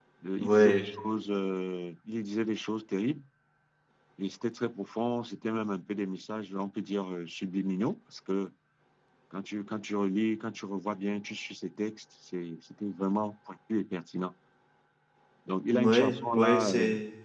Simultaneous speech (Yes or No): Yes